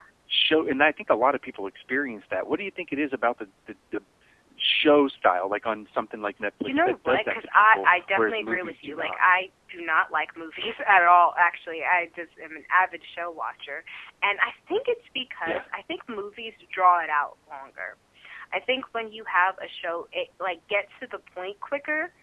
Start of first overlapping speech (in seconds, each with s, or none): 6.6 s